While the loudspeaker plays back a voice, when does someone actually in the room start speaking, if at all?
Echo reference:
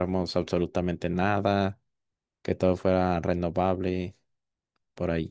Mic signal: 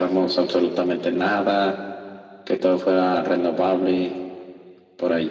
none

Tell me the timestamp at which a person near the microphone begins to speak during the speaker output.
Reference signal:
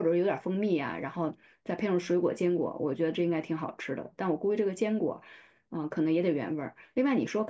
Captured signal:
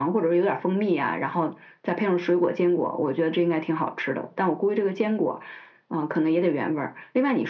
none

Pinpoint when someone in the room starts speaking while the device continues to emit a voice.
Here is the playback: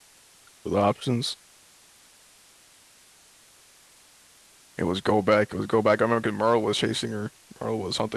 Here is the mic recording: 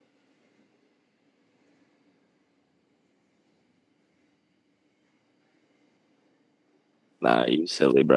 7.2 s

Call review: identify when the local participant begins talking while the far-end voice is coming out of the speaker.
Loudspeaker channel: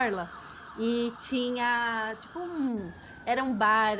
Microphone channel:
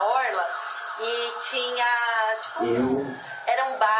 2.6 s

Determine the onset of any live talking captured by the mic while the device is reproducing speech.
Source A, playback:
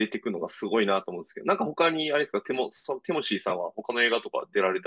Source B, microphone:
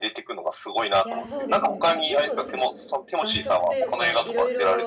1.0 s

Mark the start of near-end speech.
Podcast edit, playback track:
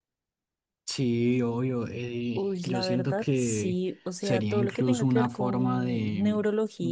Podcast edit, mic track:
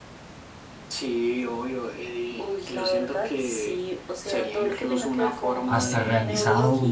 5.7 s

